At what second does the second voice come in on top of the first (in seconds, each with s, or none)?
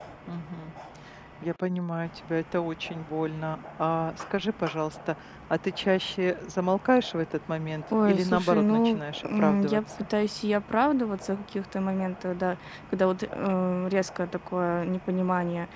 7.9 s